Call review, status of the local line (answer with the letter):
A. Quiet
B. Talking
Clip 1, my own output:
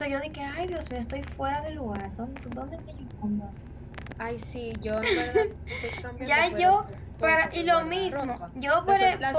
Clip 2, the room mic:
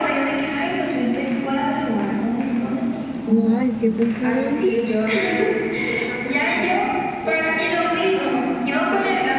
B